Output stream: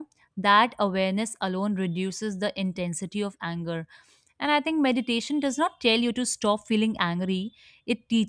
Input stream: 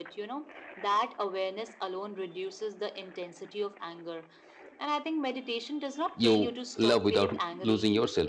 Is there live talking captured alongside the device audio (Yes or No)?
Yes